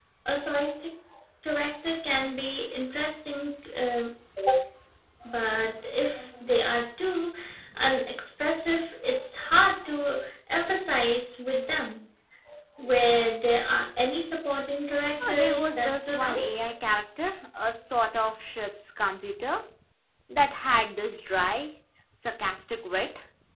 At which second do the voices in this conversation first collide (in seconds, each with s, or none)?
15.2 s